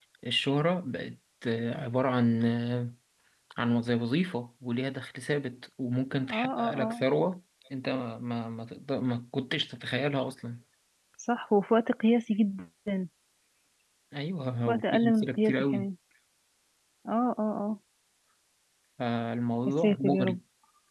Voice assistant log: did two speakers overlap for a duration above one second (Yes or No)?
Yes